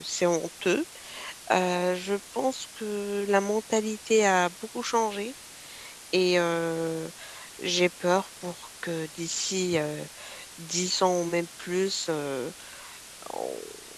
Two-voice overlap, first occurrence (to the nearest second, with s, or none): none